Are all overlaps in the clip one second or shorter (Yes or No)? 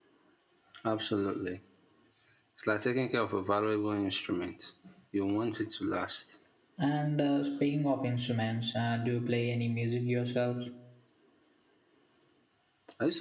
Yes